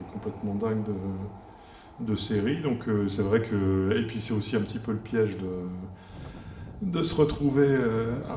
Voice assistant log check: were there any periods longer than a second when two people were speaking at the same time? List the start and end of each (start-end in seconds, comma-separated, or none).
none